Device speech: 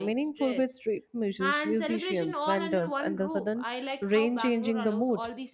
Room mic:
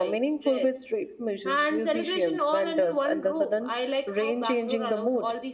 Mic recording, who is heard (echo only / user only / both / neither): echo only